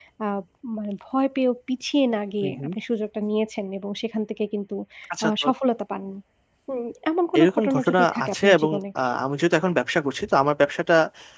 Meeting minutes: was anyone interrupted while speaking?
Yes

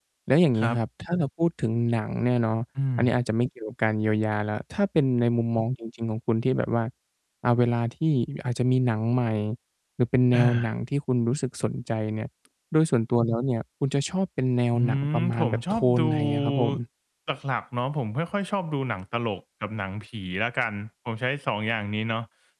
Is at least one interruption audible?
Yes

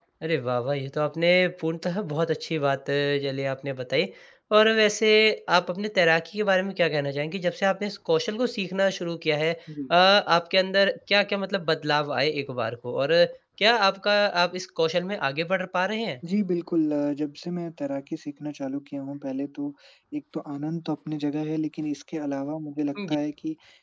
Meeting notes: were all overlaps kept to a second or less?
Yes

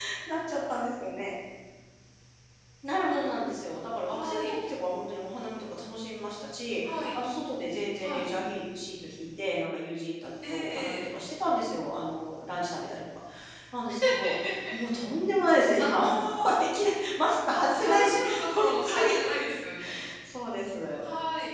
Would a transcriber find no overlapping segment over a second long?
No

